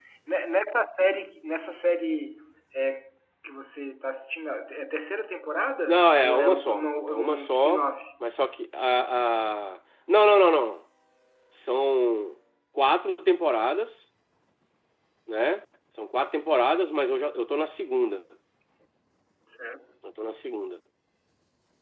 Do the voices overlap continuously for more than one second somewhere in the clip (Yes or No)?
Yes